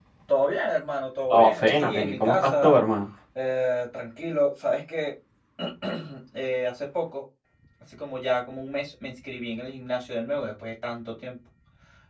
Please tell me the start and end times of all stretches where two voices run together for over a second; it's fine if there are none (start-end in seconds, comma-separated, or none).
1.3-2.7